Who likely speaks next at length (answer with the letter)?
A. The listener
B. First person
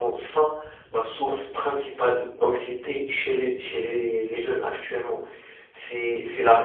A